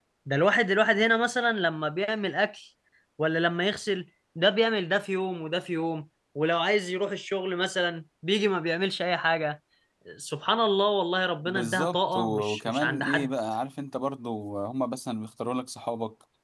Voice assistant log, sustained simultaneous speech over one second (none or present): present